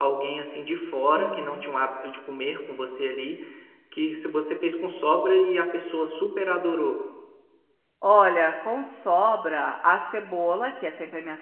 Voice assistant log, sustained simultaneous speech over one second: none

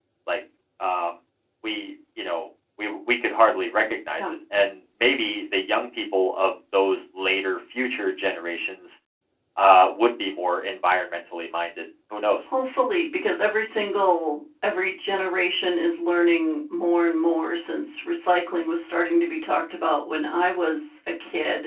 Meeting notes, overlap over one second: none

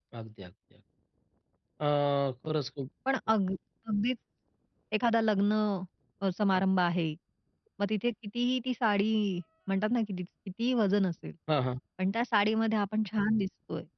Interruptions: none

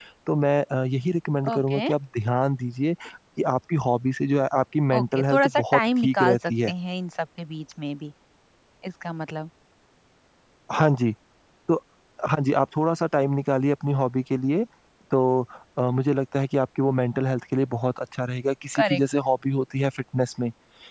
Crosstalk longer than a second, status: present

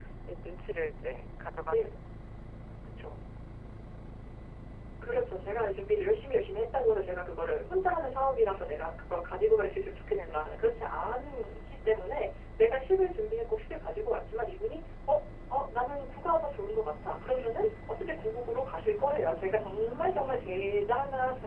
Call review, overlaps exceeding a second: none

